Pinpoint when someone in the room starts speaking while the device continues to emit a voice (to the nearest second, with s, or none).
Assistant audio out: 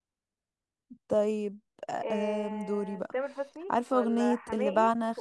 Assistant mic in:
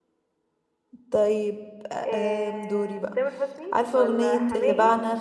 none